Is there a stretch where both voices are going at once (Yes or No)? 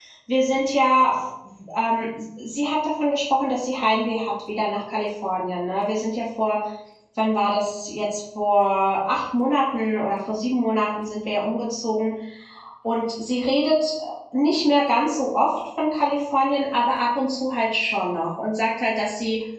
No